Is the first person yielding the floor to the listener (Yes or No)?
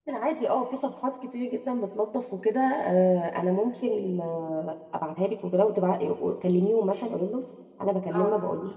No